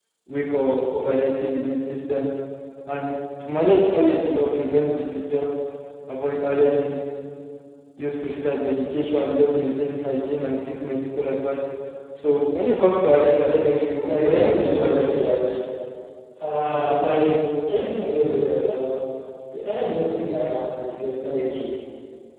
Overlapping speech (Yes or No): Yes